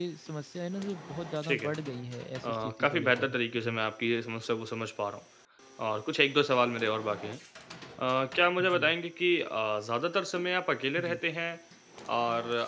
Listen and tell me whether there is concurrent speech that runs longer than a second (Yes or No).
Yes